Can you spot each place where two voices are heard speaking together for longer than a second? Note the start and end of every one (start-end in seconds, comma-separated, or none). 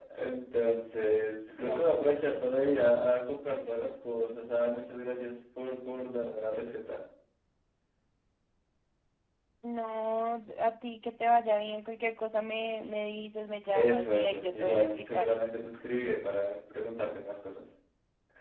13.7-15.4